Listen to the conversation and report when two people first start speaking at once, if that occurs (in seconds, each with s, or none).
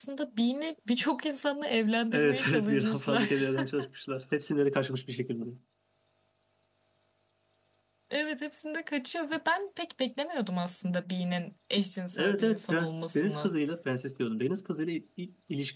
2.1 s